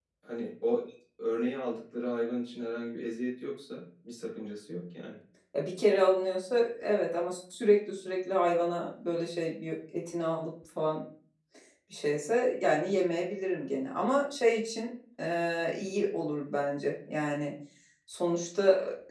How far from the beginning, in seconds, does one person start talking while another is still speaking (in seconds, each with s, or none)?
none